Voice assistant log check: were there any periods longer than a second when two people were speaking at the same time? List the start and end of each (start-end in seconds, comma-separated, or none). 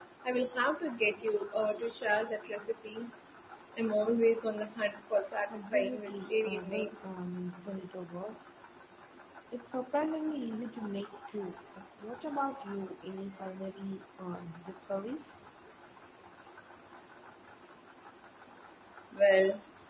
5.5-6.9